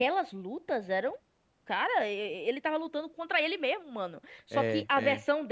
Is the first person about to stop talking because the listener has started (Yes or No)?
No